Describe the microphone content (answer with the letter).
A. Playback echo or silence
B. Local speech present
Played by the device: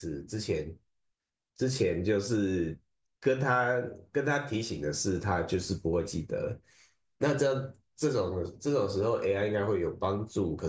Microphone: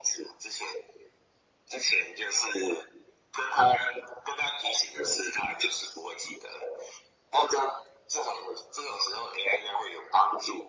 A